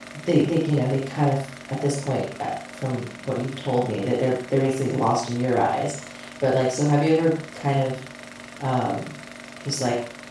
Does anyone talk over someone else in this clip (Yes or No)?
No